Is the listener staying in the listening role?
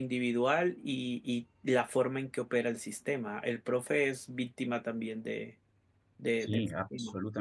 No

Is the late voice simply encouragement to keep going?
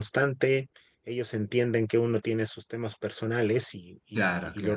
Yes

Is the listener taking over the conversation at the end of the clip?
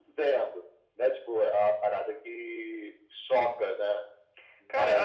Yes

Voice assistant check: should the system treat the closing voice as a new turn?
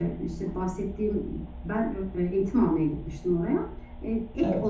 No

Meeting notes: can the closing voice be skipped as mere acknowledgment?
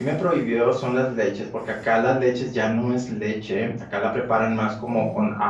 Yes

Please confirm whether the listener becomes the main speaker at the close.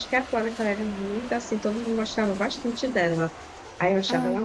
No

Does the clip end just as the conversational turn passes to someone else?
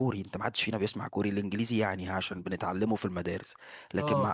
No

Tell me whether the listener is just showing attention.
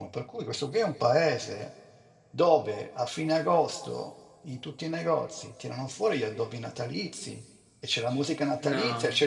Yes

